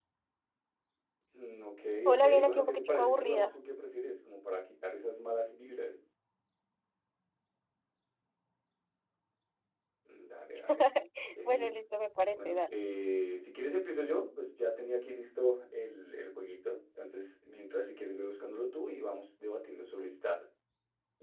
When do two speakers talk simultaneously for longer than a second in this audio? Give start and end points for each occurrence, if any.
2.1-3.5

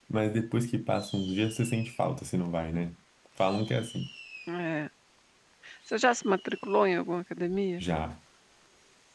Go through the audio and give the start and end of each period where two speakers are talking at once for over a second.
none

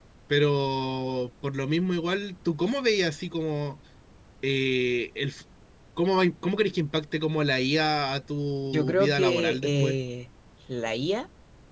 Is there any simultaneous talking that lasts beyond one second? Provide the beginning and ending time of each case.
8.7-10.0

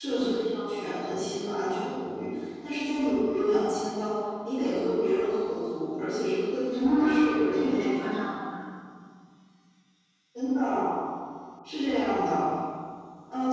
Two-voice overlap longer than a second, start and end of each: 6.7-8.2

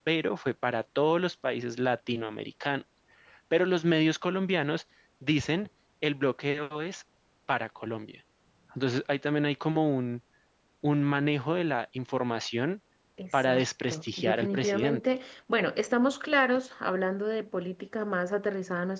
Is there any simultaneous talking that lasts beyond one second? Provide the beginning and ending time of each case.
13.5-15.1

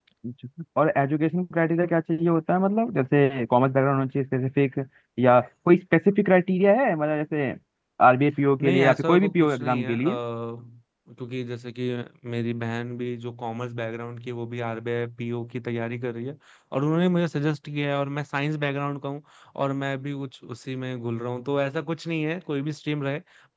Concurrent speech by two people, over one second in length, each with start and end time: 8.6-9.9

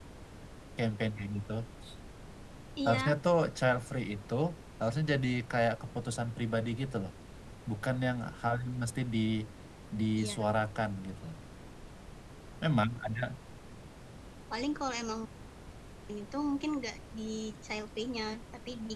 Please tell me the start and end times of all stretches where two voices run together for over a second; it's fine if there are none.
none

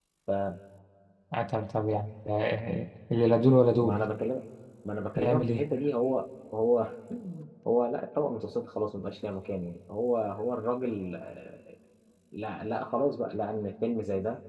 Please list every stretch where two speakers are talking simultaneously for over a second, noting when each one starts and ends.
none

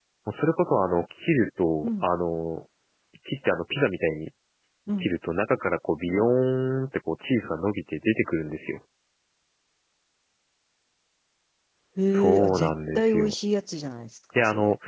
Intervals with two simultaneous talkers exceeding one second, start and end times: 12.1-13.3

